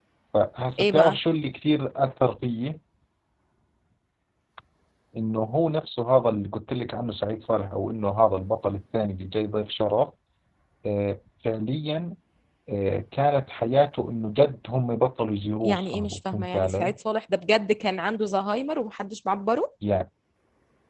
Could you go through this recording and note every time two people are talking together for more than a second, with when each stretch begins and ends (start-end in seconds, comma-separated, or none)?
15.6-16.9